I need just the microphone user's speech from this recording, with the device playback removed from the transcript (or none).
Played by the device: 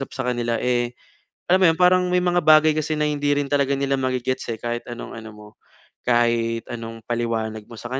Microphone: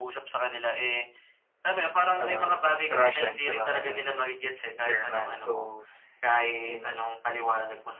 ah Russian 'tsaka German so, I mean